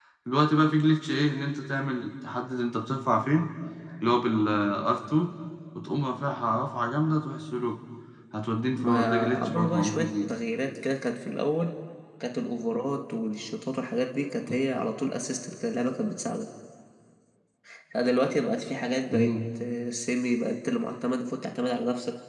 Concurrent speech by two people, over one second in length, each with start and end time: 8.8-10.1

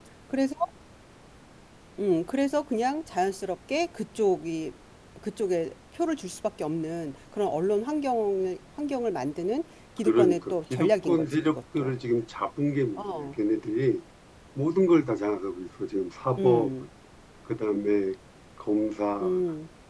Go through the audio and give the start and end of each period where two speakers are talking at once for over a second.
10.1-11.9

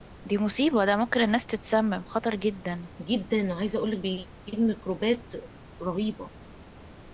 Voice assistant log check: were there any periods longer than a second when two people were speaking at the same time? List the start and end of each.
none

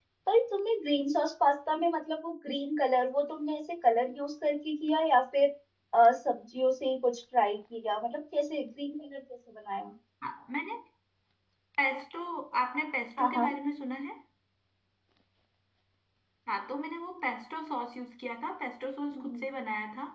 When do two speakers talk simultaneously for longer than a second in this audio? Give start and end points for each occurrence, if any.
none

